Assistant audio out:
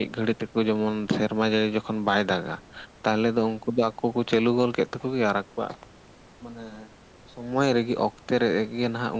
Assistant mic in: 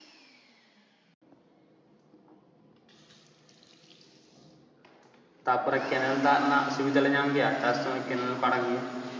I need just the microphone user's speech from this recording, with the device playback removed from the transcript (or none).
ᱛᱟᱯᱚᱨᱮ ᱠᱮᱱᱮᱞ ᱫᱟᱜ ᱨᱮᱱᱟᱜ ᱥᱩᱵᱤᱫᱷᱟ ᱞᱮ ᱧᱟᱢ ᱜᱮᱭᱟ᱾ ᱪᱟᱥ ᱥᱚᱢᱚᱭ ᱠᱮᱱᱮᱞ ᱠᱚ ᱟᱲᱟᱜ ᱜᱮᱭᱟ᱾